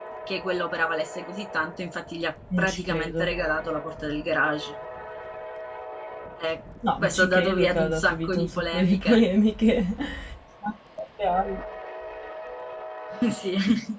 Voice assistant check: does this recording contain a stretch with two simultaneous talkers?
Yes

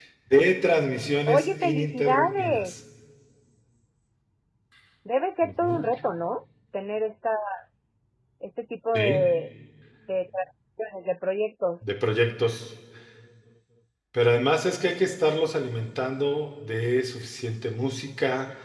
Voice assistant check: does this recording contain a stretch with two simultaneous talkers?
Yes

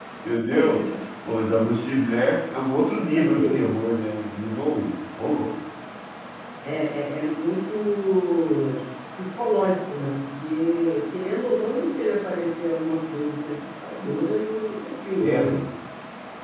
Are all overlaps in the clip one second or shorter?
Yes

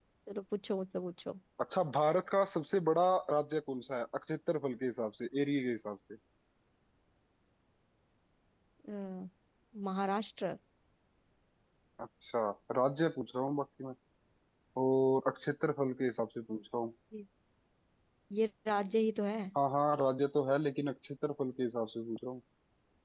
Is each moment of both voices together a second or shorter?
Yes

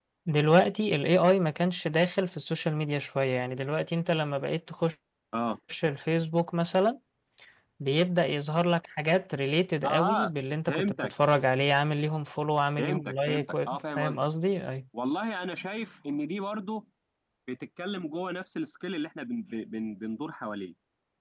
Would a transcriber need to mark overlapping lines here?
Yes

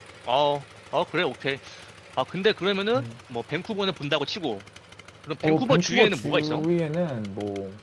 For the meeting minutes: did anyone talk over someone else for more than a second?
Yes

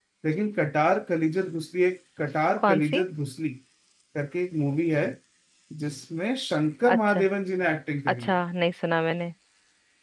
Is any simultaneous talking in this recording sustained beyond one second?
No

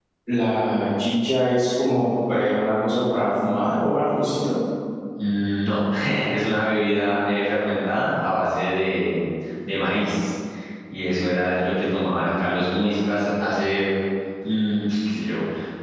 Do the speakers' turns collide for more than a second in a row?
No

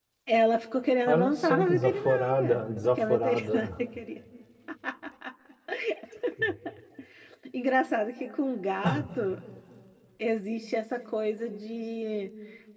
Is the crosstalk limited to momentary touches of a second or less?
No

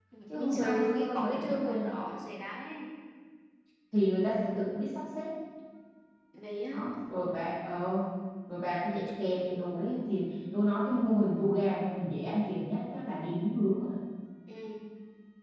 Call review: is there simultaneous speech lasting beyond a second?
Yes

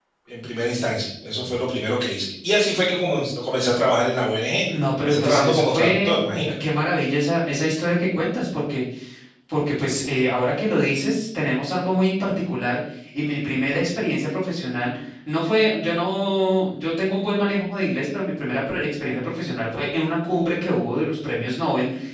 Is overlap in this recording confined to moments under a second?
No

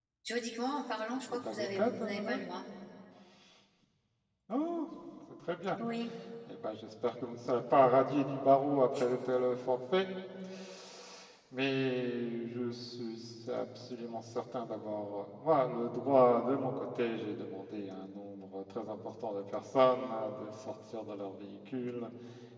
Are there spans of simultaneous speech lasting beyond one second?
Yes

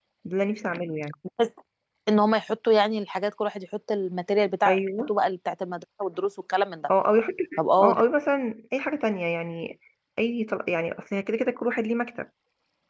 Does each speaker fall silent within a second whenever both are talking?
Yes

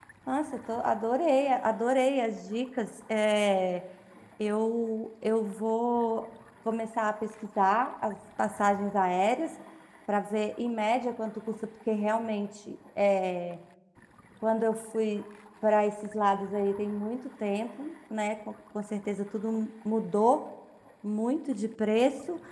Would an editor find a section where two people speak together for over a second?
No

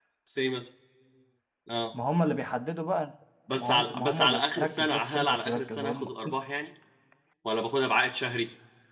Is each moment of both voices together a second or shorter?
No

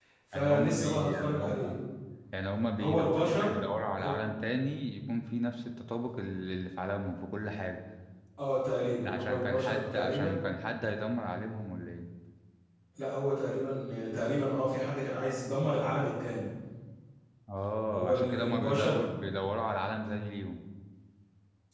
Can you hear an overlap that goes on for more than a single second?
Yes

